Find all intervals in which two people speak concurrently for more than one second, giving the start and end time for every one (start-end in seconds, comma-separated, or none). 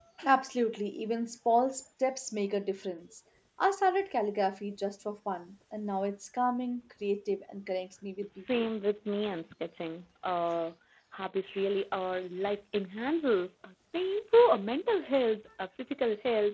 none